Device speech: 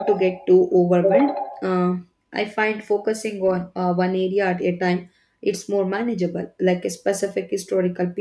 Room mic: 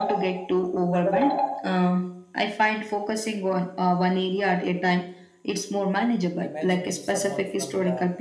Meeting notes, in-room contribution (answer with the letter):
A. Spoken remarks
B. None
A